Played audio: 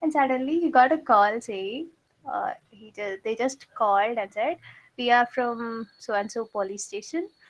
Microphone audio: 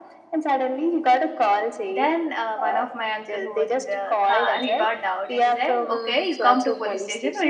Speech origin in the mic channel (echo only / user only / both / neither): both